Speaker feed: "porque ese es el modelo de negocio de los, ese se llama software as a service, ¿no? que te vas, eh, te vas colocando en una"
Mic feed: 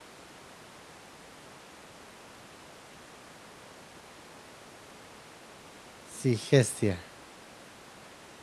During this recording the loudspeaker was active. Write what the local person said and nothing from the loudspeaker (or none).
Sí, Gestia.